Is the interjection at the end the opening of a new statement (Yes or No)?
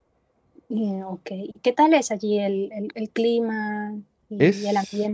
Yes